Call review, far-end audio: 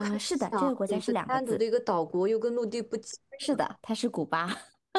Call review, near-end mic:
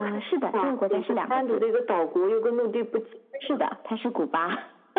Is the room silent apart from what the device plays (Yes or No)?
Yes